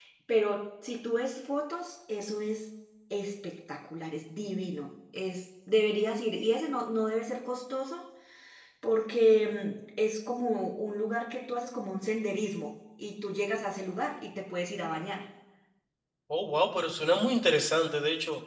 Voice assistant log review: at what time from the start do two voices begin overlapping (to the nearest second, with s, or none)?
none